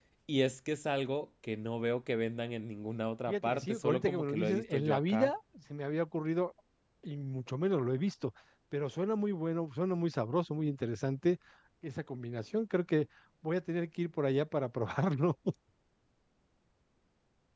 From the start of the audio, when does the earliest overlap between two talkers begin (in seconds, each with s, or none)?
3.3 s